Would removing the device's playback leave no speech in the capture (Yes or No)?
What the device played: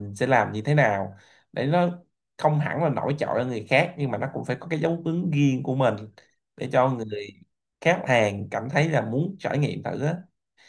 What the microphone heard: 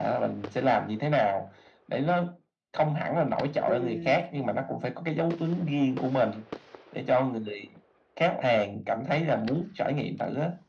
No